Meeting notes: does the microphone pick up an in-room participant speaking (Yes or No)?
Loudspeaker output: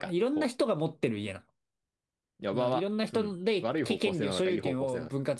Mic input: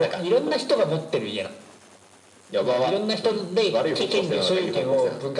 No